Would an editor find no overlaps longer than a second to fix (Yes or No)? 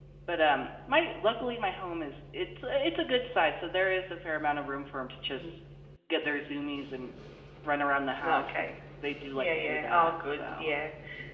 No